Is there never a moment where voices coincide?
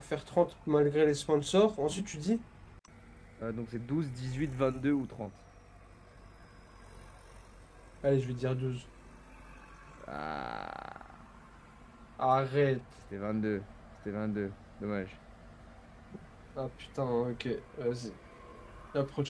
Yes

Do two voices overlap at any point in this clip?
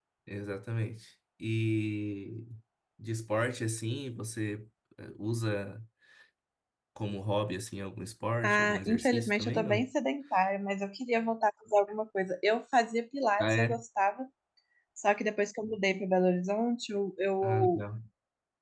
Yes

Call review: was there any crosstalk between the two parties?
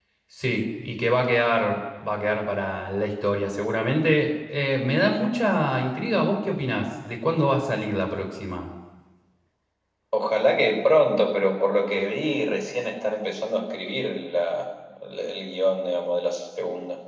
No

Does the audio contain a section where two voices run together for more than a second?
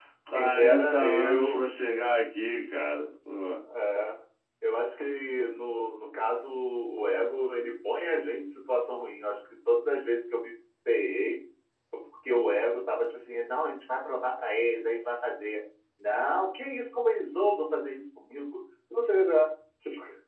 Yes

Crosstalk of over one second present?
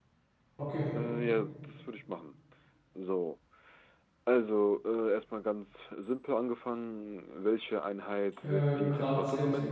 Yes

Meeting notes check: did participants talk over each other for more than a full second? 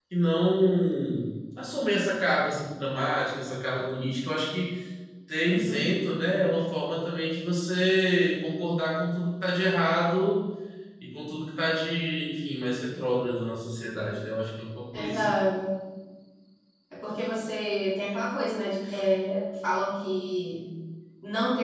No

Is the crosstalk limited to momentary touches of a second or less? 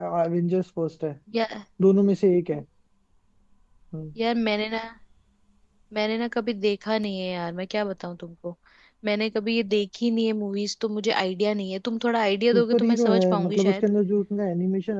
No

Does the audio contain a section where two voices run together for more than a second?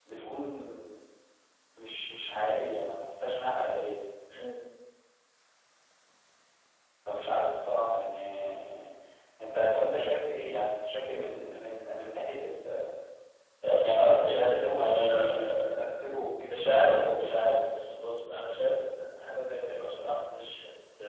Yes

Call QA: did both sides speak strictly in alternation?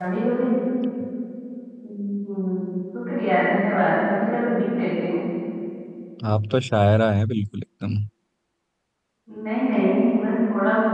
Yes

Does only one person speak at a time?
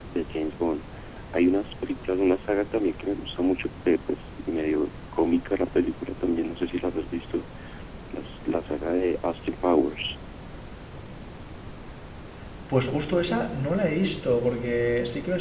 Yes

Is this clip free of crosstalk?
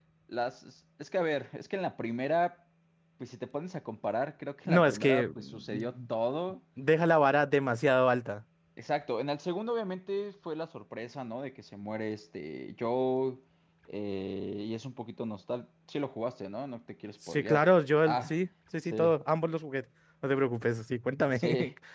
No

